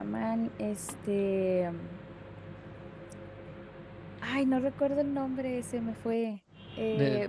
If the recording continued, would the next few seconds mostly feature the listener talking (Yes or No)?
No